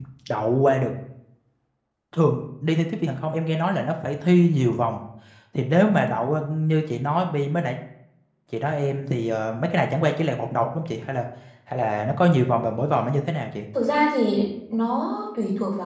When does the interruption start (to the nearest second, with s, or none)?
none